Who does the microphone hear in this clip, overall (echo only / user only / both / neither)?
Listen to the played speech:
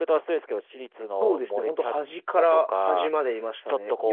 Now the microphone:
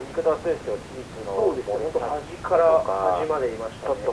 echo only